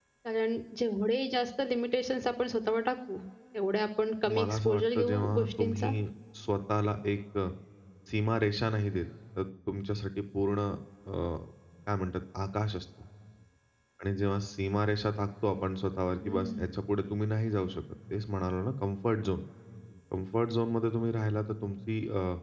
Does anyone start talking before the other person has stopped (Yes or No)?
Yes